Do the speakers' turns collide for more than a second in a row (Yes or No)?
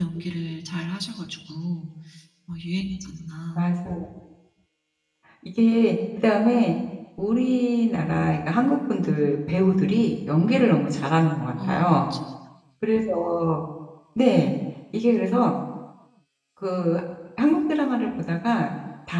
No